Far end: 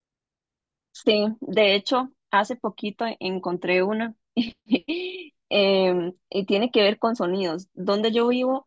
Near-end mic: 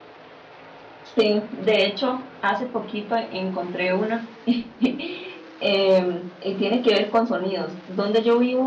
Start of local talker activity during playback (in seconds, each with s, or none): none